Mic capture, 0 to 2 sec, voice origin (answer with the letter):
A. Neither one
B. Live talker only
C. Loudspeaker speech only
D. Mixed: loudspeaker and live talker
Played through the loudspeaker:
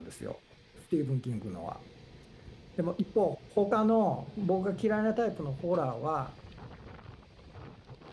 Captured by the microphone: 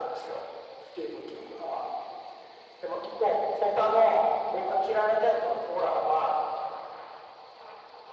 C